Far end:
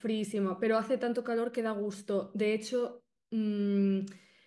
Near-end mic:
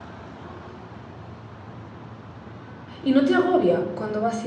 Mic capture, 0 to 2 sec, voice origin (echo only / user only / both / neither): neither